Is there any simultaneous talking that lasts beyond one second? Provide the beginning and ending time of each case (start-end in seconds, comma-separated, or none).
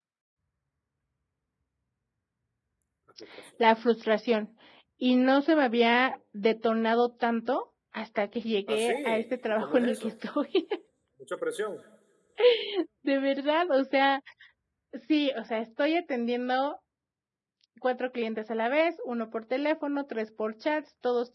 8.7-10.1